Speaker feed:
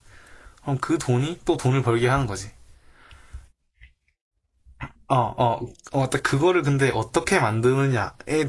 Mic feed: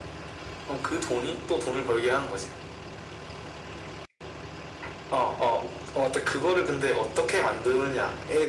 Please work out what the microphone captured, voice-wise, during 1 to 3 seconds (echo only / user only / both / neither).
echo only